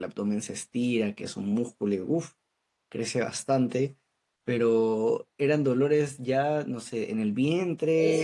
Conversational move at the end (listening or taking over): taking over